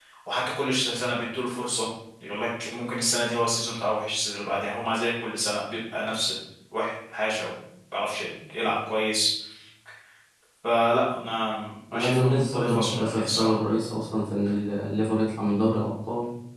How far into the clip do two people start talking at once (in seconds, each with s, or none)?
11.9 s